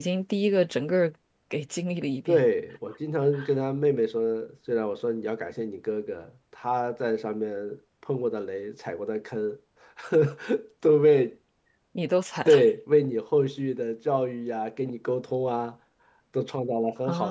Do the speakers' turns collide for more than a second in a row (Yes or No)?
No